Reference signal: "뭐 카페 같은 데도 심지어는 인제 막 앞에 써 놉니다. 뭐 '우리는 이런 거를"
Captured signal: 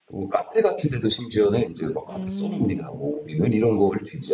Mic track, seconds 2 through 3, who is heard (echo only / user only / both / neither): both